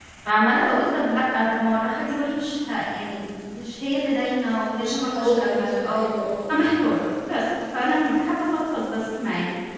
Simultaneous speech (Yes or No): Yes